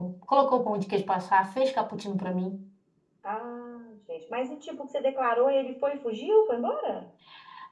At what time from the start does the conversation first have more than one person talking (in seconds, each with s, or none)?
none